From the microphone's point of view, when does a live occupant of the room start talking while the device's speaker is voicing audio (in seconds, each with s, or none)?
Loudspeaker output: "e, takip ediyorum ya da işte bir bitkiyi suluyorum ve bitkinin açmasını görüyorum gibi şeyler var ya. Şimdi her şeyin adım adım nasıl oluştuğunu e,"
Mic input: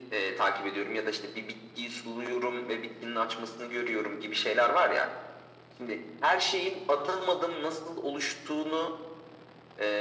none